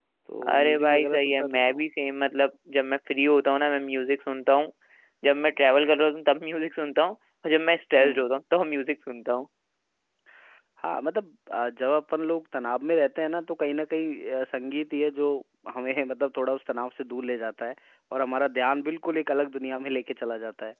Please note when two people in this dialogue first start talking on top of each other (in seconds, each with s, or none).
0.5 s